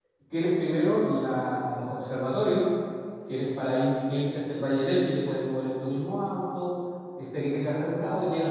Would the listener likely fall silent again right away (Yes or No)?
Yes